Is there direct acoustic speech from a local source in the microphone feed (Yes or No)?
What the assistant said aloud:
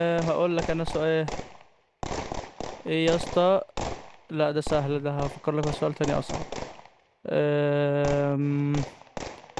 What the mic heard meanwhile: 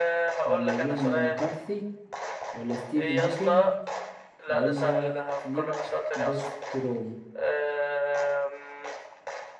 Yes